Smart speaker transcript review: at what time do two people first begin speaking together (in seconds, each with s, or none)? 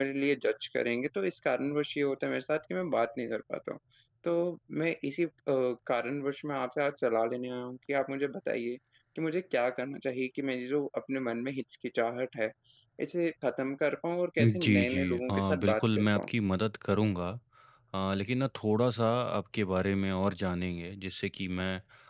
14.4 s